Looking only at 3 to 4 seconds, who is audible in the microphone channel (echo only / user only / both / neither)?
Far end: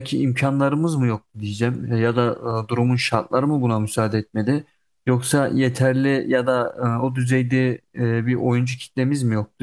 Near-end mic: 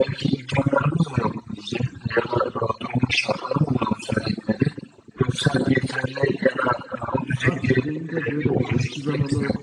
echo only